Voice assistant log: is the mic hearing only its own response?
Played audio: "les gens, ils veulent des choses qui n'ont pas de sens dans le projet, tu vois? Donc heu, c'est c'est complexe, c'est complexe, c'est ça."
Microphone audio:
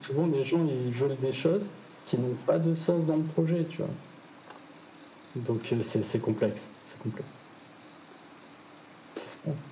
Yes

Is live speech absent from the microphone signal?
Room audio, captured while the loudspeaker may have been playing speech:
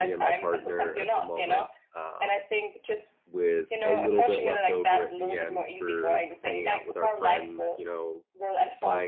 No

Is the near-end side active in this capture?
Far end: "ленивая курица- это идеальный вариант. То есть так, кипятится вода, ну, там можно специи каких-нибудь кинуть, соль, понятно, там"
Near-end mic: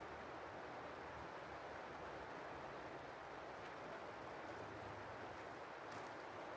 No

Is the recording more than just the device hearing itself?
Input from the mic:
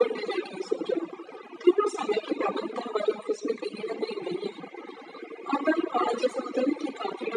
No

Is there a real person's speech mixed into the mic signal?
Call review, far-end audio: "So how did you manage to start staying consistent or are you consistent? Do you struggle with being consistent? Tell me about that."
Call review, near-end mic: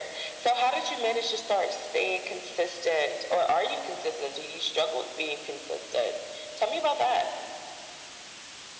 No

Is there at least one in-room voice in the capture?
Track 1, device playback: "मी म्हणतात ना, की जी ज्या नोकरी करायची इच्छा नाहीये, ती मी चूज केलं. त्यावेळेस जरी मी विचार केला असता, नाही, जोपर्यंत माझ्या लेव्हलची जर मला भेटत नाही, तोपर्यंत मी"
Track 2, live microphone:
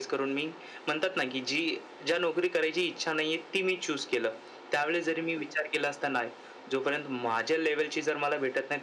No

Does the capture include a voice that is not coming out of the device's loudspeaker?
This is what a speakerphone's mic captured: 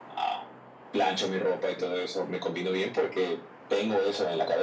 No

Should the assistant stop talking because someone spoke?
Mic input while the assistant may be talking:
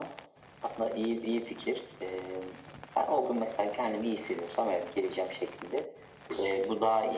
No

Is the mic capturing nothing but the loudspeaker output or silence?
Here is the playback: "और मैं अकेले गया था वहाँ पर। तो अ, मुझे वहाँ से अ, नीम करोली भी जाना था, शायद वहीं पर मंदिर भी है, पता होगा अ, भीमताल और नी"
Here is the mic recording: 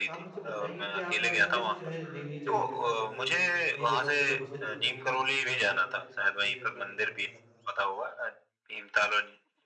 No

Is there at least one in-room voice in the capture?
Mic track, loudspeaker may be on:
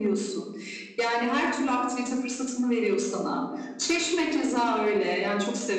No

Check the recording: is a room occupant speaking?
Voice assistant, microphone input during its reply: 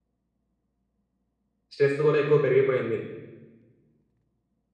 Yes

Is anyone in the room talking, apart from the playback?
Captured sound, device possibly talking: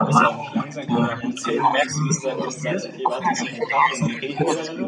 Yes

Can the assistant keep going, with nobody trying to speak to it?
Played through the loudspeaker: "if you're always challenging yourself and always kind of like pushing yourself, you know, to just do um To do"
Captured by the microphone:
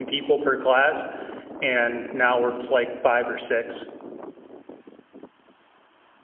No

